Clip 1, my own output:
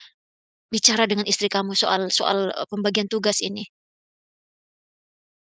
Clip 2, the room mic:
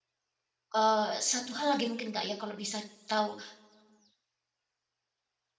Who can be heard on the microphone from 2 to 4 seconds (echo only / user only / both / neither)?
user only